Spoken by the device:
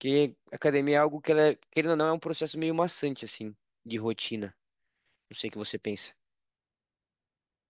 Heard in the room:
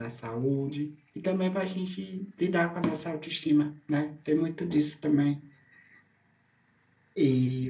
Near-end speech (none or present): present